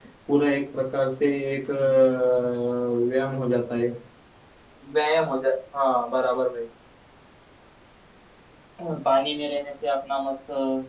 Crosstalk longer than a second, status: none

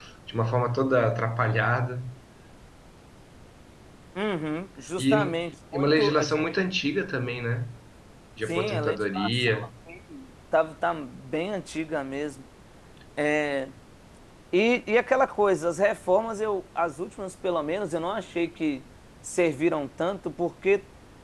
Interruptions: present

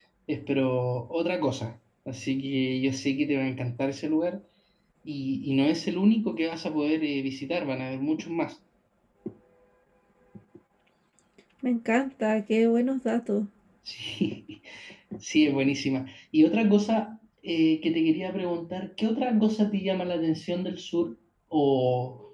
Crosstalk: none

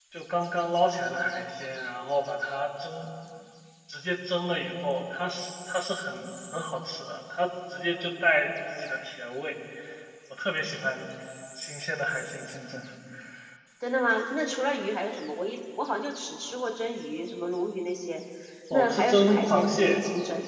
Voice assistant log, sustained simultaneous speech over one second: present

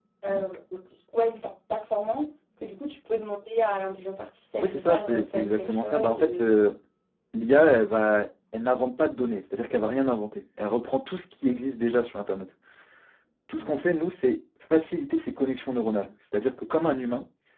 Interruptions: present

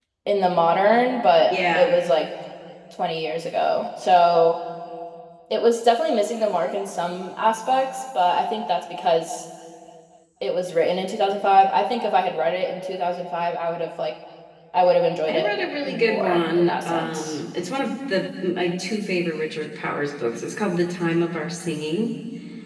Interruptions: present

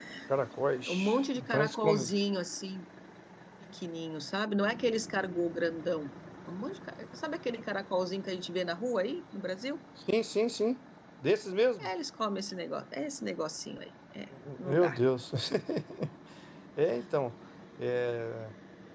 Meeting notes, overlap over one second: present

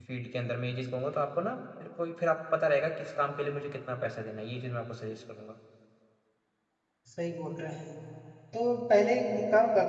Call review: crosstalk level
none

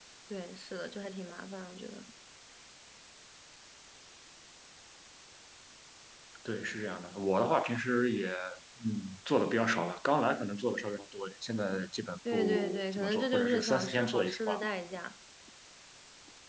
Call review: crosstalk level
present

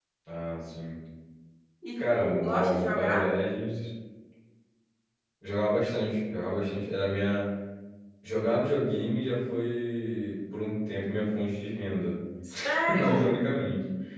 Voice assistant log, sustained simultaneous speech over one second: present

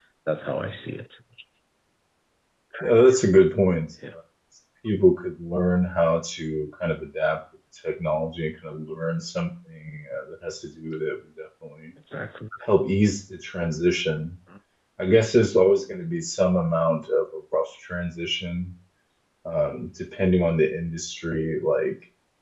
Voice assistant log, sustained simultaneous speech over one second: none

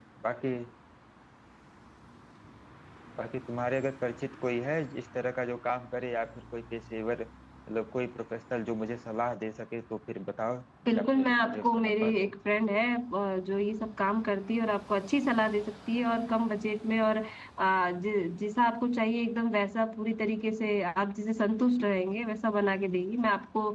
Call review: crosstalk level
present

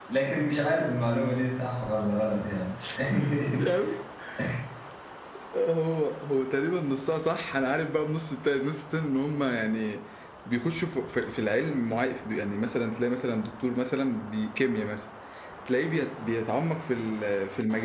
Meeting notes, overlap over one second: none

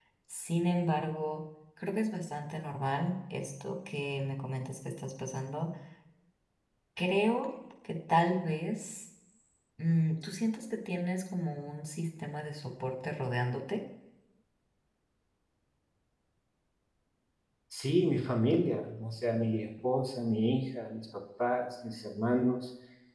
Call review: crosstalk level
none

